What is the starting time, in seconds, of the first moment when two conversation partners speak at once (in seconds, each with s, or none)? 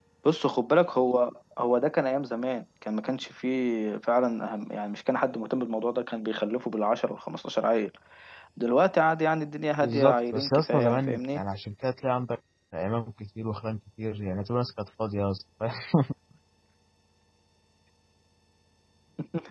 9.8 s